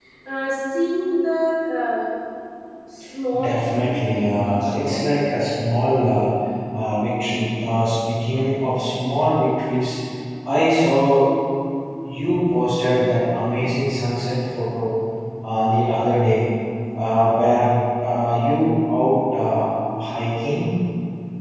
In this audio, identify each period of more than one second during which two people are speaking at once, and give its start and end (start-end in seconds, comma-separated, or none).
3.4-5.1